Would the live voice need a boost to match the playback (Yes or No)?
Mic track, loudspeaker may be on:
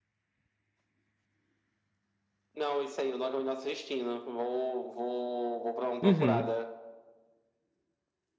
No